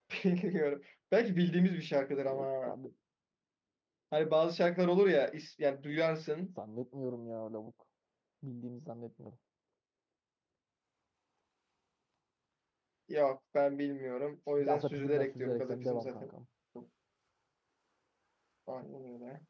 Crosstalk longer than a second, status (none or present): present